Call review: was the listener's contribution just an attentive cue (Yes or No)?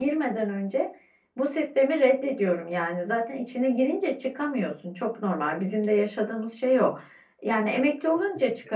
Yes